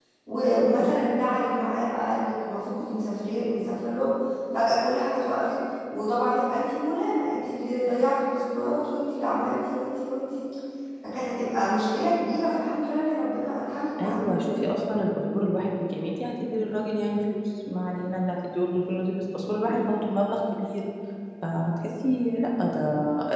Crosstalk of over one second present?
No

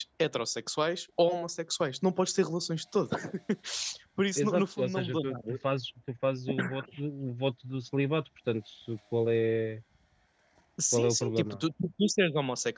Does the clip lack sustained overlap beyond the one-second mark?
No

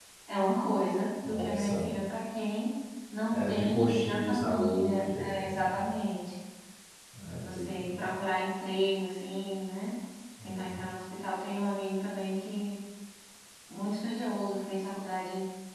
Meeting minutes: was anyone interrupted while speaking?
Yes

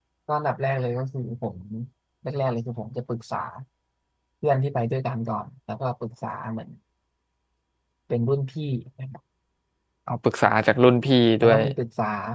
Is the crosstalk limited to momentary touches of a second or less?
Yes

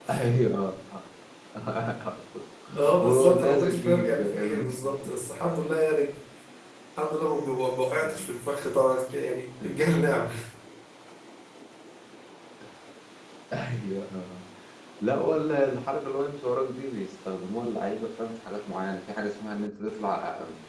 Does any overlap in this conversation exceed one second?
Yes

